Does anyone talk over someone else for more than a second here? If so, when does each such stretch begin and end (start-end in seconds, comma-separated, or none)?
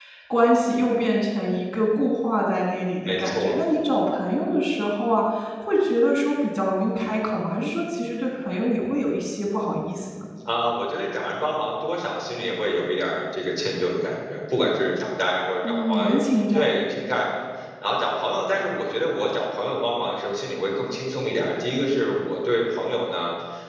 none